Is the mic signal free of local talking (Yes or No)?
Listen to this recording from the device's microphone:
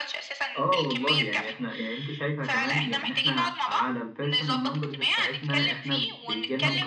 No